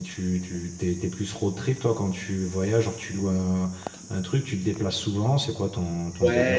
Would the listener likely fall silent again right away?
No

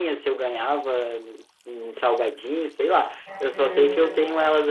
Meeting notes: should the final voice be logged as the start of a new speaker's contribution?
No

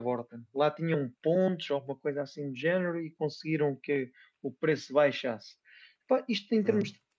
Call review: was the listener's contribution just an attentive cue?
Yes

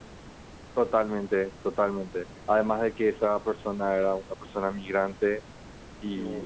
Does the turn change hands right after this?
No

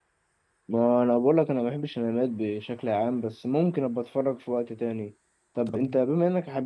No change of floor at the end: Yes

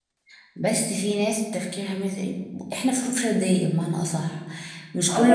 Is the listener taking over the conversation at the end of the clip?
No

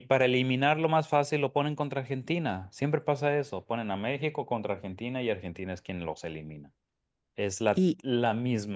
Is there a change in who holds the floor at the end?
No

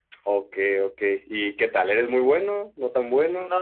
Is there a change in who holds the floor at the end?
Yes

